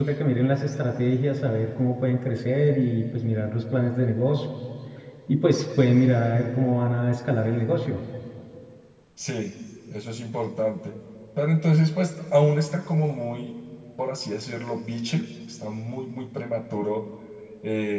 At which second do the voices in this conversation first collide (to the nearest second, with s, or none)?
none